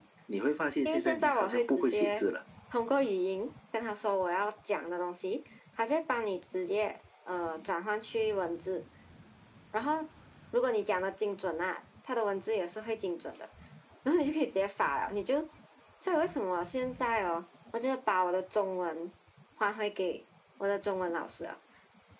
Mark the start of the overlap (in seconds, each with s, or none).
0.8 s